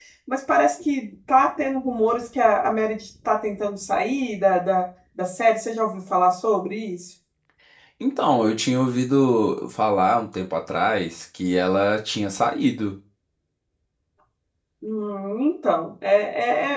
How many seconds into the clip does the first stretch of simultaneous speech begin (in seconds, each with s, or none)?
none